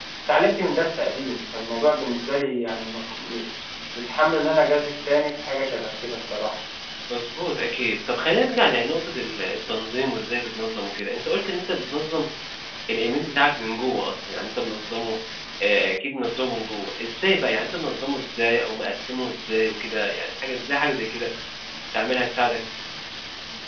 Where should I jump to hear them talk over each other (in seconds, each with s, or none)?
none